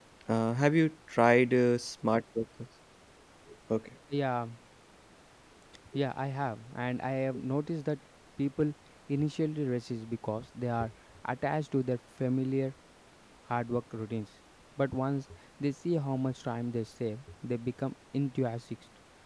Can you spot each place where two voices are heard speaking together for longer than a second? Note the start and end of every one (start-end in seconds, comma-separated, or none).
none